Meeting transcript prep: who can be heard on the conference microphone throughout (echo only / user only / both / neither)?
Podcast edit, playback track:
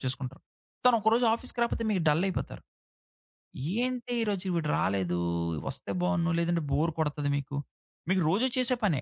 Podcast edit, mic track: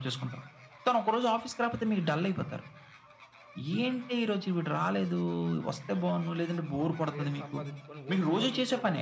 both